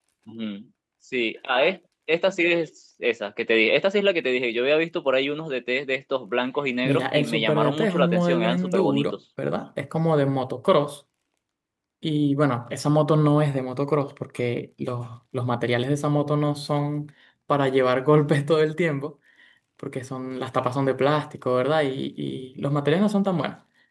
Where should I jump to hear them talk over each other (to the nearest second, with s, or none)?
7 s